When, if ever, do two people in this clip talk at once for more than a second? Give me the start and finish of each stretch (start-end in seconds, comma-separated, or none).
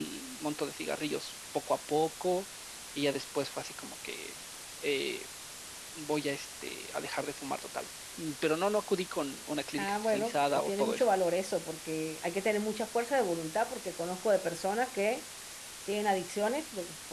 9.8-11.1